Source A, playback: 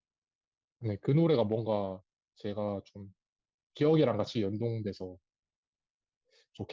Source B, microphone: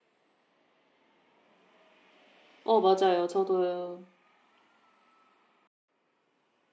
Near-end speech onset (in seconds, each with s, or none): 2.6 s